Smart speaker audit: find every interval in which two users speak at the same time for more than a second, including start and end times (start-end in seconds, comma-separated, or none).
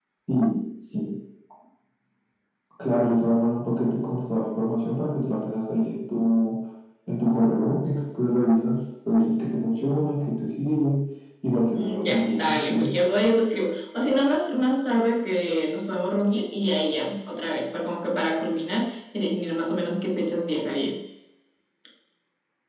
11.7-13.0